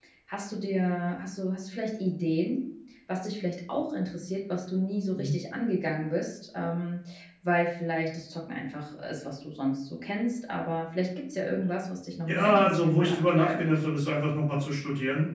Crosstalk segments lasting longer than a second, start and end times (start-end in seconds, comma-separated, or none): 12.2-13.6